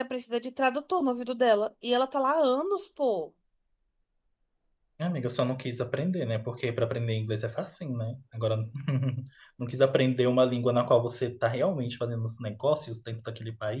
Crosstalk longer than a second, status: none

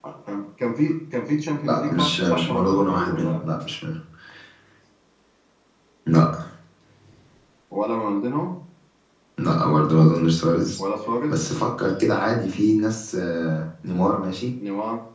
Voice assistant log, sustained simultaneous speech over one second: present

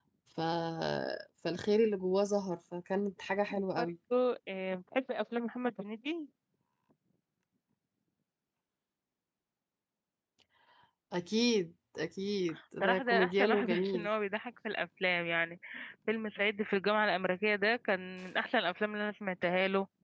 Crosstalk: present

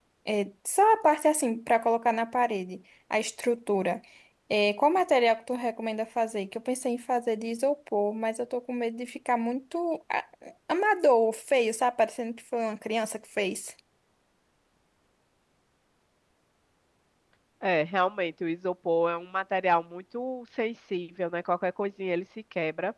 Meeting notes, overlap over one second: none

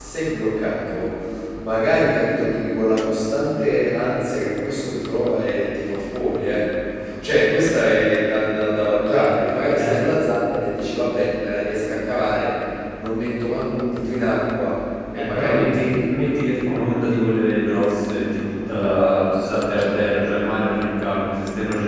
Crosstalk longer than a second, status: present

